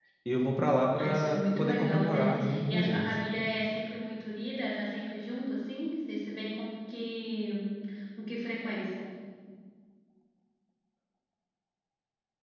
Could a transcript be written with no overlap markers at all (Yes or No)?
No